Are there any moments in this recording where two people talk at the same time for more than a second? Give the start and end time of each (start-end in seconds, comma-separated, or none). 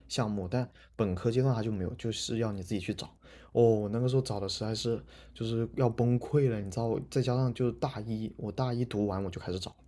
none